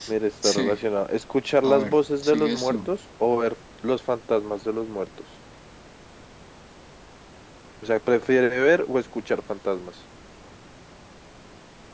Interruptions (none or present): present